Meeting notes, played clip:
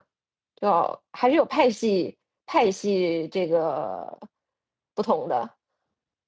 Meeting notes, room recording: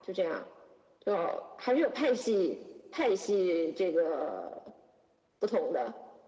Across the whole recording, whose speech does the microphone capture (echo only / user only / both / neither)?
echo only